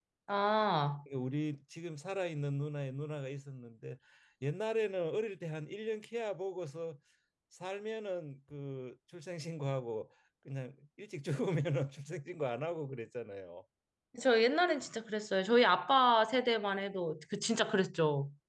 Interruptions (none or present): none